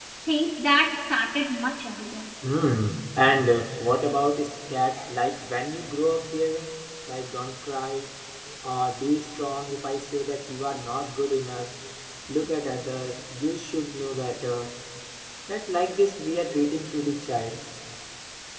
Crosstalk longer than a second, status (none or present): none